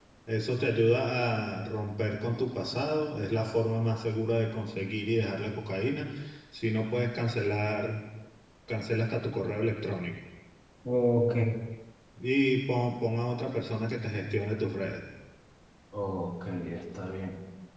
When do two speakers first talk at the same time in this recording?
none

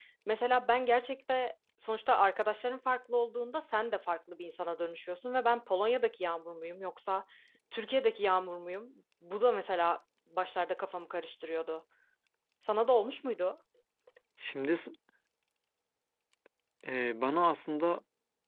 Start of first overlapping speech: none

